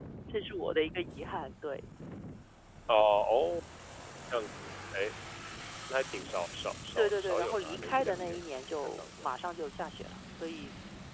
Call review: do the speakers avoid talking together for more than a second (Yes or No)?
No